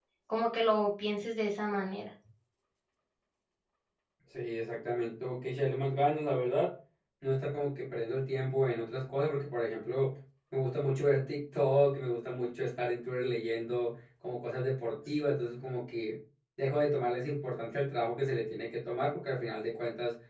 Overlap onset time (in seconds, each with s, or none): none